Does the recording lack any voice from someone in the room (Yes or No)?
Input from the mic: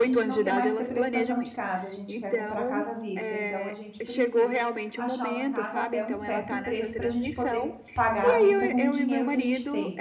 No